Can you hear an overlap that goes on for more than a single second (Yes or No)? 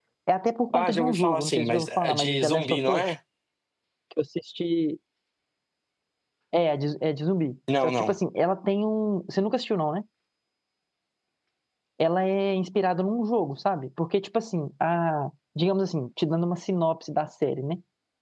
Yes